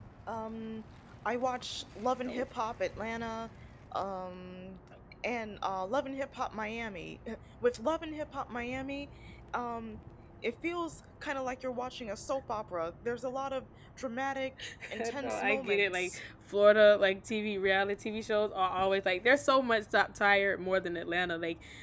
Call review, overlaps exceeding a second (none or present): present